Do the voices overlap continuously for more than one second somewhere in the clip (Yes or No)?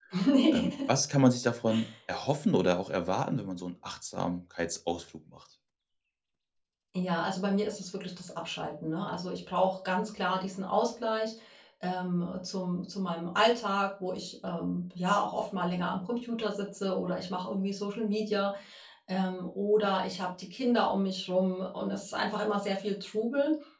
No